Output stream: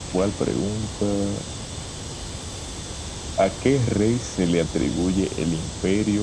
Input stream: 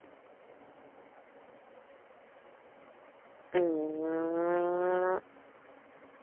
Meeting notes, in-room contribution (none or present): present